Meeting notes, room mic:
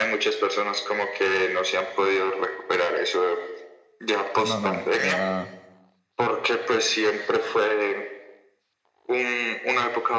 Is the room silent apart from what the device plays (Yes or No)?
No